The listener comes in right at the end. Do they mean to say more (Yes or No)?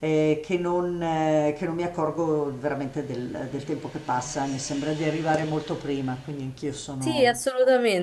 Yes